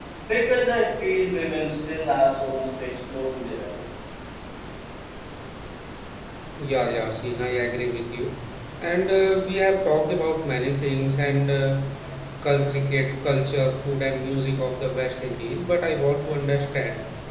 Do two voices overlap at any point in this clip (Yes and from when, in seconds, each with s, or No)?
No